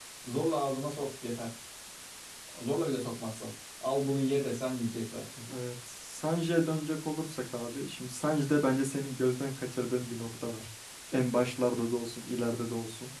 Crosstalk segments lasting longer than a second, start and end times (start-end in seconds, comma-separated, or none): none